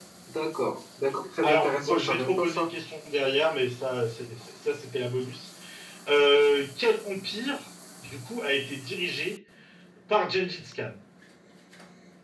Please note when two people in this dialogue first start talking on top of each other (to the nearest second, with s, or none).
1 s